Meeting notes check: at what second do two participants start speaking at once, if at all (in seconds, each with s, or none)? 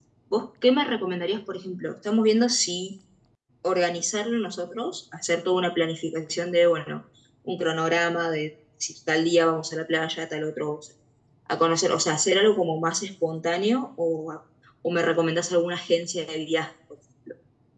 none